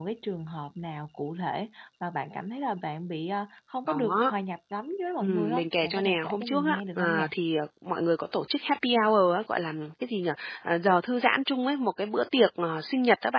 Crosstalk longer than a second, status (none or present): present